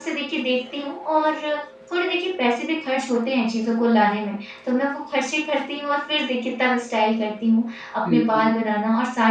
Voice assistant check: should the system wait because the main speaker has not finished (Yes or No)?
Yes